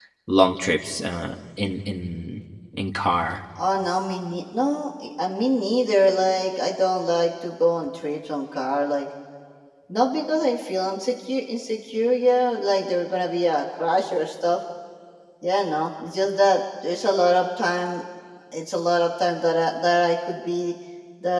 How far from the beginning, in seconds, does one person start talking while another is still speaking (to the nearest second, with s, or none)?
none